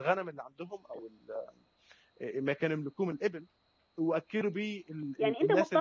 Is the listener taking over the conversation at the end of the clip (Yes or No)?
Yes